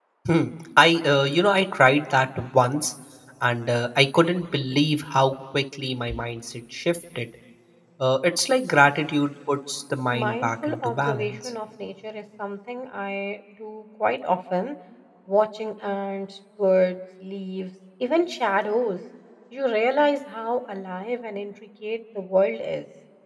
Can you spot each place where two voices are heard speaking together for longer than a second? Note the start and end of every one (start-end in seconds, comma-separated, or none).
10.1-11.5